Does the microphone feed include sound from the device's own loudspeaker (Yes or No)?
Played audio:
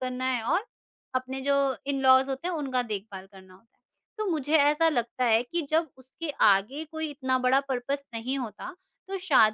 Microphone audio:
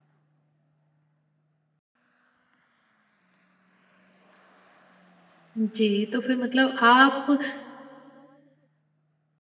No